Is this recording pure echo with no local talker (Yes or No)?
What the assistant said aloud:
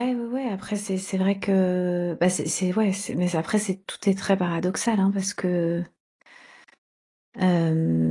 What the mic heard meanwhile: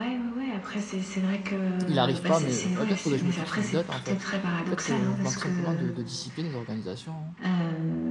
No